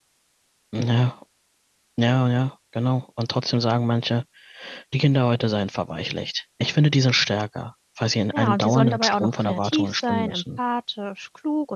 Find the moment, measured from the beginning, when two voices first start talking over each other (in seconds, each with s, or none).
8.3 s